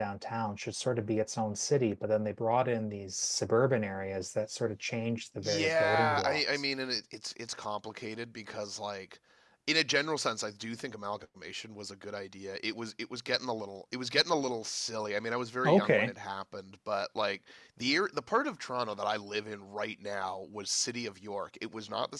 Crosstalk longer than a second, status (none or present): present